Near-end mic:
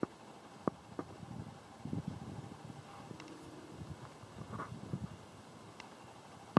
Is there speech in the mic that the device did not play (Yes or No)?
No